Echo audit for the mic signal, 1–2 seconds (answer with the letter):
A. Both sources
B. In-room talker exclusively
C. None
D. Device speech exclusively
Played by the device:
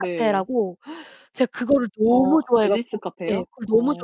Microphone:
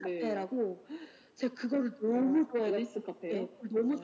D